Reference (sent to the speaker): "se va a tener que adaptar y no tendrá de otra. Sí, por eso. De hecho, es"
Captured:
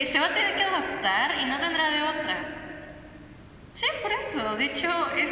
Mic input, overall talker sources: echo only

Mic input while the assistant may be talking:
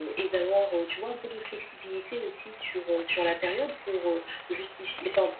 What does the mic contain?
echo only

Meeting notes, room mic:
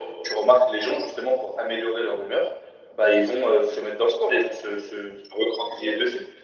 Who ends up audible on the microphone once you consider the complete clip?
echo only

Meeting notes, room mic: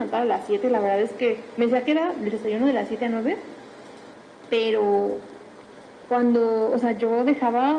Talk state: echo only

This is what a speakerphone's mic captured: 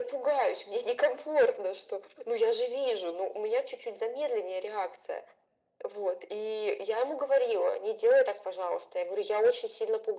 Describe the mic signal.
echo only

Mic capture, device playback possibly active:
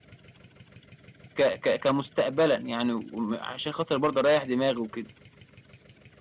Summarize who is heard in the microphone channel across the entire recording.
user only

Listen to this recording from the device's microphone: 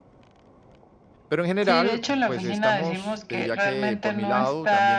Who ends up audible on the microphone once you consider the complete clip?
both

